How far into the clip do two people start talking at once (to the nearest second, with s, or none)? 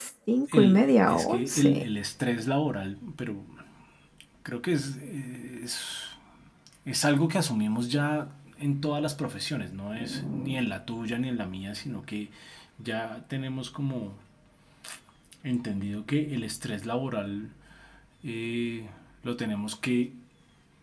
1 s